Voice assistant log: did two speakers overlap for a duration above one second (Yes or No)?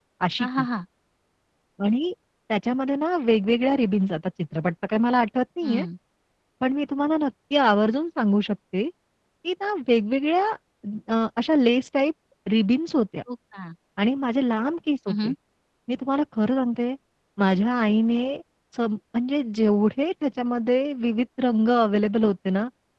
No